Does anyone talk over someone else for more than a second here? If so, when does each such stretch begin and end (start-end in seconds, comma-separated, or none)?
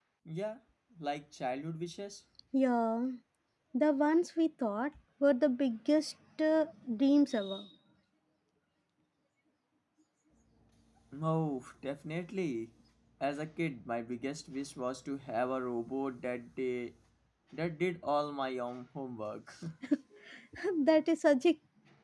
none